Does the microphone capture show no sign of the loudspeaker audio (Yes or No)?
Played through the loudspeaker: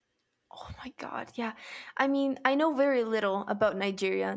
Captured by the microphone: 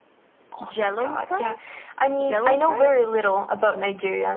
No